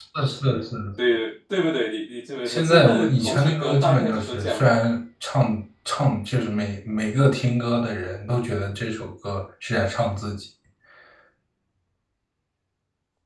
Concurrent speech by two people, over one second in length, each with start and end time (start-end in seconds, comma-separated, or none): 2.5-4.8